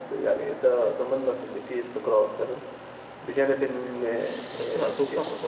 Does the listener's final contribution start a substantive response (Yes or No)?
Yes